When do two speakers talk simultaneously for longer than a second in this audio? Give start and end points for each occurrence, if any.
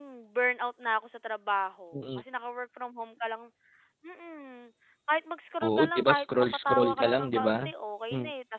5.6-7.6

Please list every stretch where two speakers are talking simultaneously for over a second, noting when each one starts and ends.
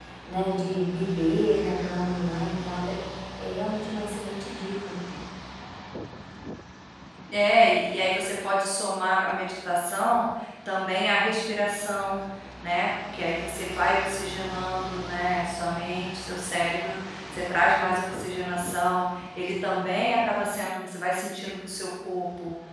none

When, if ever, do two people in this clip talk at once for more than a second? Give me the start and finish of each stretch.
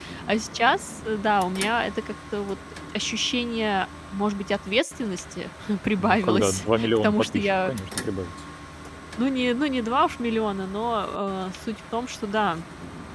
6.0-7.7

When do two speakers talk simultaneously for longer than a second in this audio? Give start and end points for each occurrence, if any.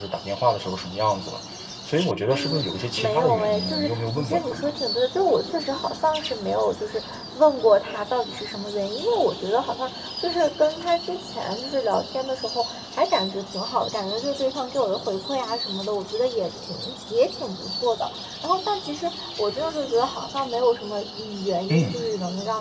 2.3-4.6

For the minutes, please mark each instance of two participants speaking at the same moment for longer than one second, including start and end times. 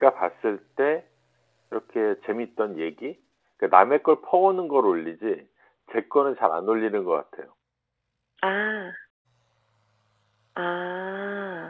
none

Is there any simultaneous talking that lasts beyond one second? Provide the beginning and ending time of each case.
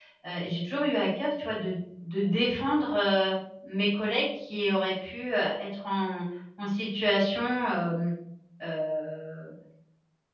none

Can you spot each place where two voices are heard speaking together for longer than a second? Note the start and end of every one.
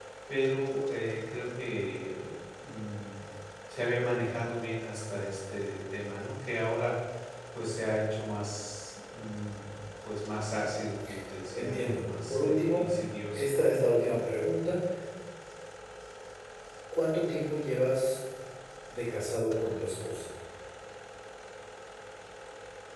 11.5-12.9

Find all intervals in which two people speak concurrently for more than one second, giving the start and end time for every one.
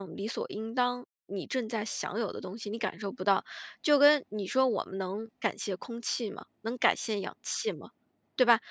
none

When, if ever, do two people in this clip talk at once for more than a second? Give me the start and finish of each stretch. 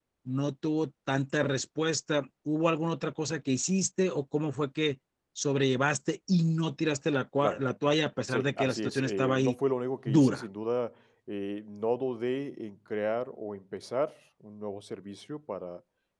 8.3-9.6

